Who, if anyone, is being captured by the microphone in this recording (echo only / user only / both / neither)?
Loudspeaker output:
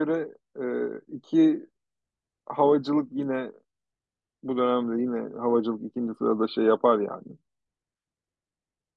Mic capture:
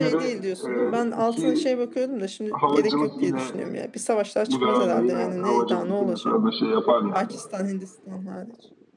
both